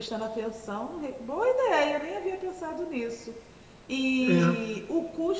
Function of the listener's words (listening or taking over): listening